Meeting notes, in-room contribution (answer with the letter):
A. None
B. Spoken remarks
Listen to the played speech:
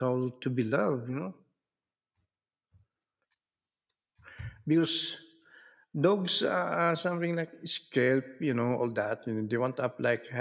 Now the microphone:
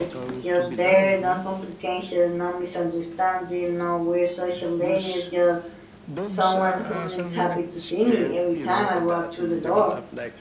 B